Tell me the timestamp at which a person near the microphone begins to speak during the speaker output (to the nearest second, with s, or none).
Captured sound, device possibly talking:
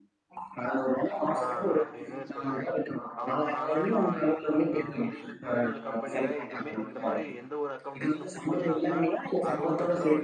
1 s